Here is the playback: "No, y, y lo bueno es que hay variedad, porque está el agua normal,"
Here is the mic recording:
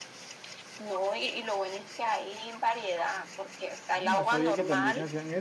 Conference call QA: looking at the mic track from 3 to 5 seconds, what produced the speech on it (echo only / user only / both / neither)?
both